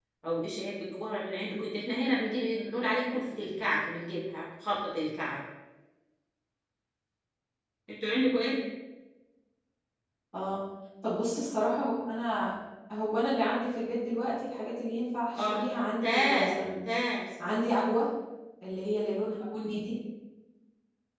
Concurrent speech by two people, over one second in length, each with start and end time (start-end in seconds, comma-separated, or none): 15.4-16.7